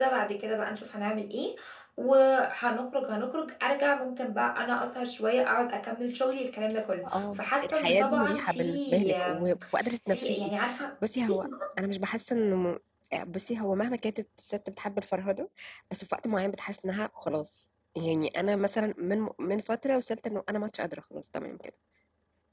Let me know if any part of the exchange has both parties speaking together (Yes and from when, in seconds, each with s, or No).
Yes, from 7.0 s